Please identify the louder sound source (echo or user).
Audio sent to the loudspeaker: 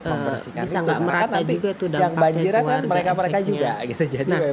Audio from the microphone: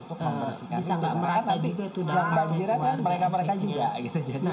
echo